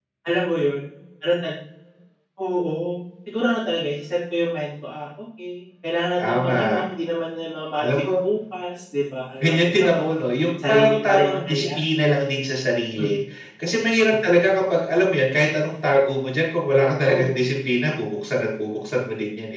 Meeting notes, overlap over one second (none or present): present